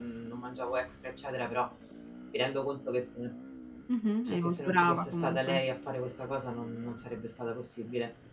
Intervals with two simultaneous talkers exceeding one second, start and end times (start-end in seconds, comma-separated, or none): 4.2-5.6